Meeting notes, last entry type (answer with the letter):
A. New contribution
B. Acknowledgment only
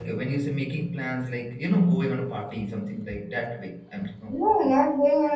A